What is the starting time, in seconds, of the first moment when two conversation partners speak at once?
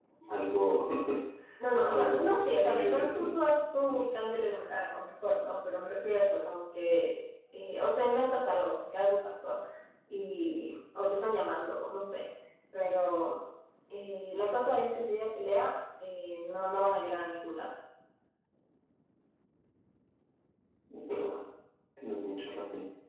2 s

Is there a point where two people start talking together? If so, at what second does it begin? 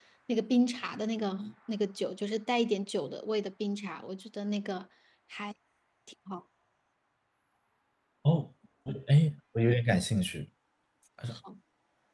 none

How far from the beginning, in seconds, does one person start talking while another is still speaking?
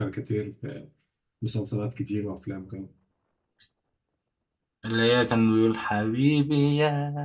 none

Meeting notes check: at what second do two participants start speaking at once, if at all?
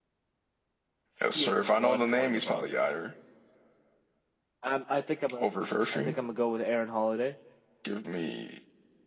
1 s

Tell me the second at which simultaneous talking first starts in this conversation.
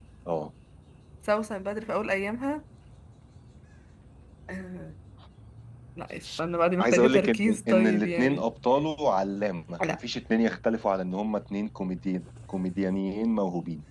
7 s

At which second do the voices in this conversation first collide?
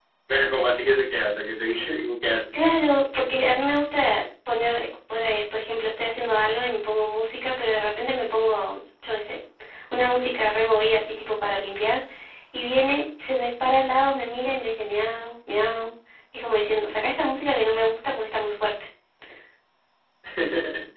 none

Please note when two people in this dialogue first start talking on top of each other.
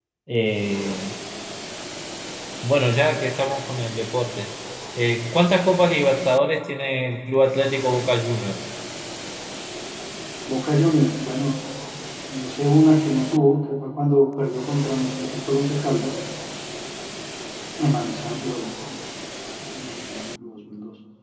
none

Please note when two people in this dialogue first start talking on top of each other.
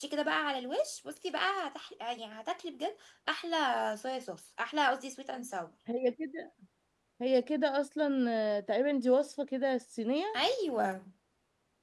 none

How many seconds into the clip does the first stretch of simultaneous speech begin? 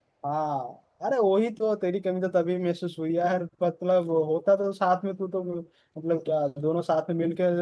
none

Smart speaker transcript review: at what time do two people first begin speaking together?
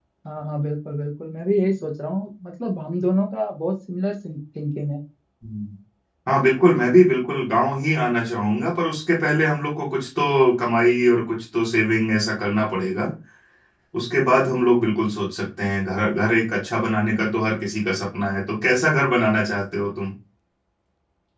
none

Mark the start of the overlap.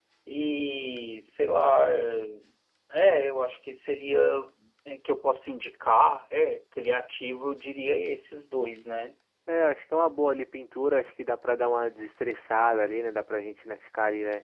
none

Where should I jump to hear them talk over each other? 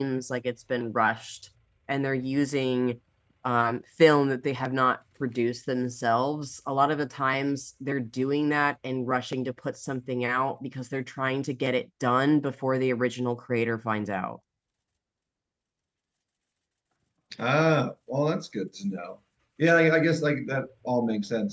none

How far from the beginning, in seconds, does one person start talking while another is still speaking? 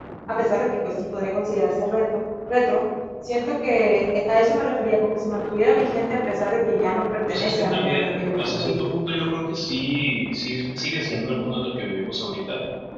7 s

